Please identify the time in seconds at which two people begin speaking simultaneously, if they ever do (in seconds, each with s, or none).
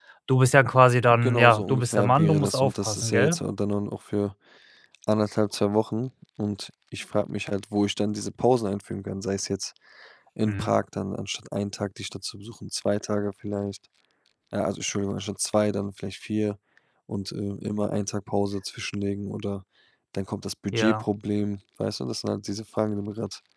1.1 s